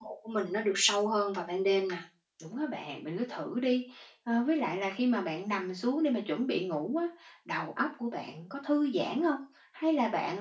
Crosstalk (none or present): none